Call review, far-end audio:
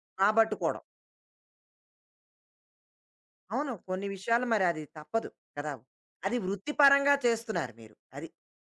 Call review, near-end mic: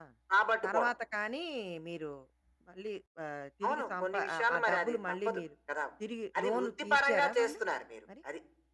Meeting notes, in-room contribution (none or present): present